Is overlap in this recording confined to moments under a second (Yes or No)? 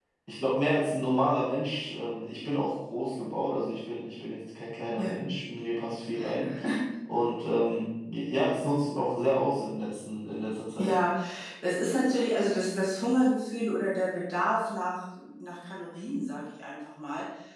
Yes